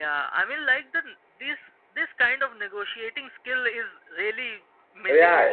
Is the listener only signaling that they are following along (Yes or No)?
No